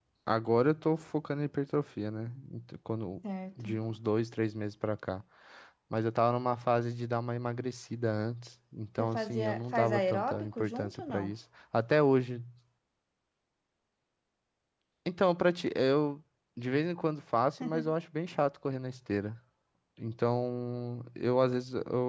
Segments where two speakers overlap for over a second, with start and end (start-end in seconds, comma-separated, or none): 9.0-11.3